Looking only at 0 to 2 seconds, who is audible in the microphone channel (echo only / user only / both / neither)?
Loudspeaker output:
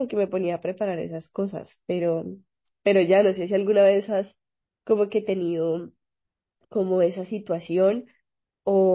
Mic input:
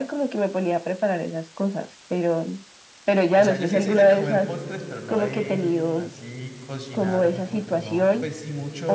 echo only